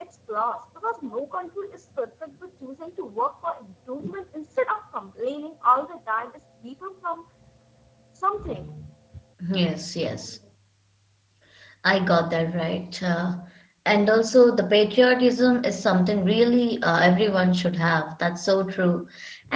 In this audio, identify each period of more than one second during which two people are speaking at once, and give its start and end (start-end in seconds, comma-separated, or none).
none